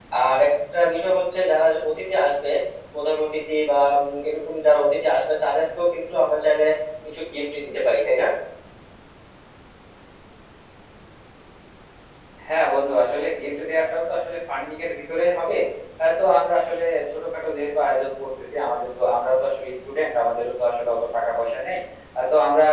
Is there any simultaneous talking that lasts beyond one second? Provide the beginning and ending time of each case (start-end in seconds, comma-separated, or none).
none